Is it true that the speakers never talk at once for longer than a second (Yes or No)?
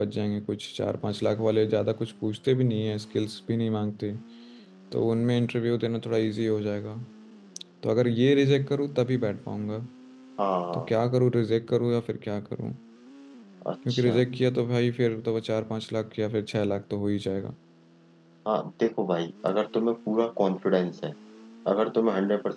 Yes